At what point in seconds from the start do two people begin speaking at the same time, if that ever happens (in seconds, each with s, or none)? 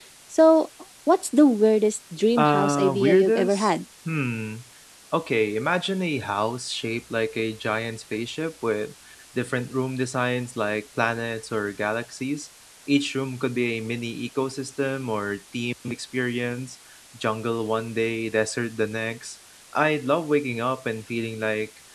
2.2 s